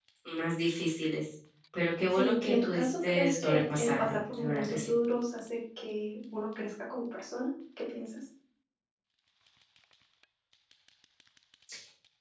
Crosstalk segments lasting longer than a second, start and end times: 2.1-4.9

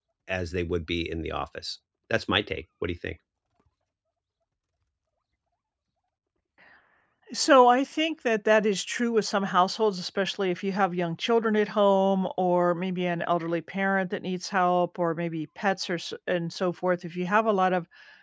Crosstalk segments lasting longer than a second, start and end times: none

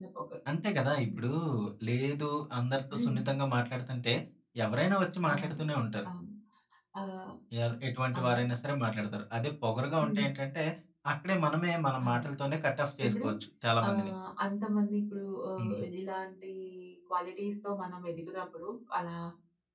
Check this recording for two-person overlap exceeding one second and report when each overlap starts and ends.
none

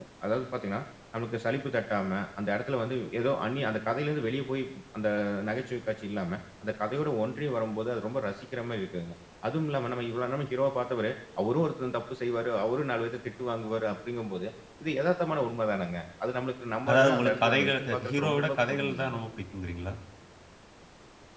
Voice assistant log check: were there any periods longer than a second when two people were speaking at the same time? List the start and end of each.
16.9-19.1

